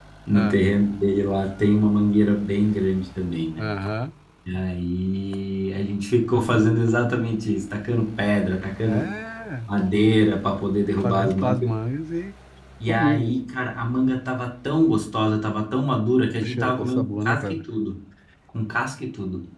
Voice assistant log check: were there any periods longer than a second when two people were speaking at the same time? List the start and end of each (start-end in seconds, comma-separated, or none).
16.4-17.6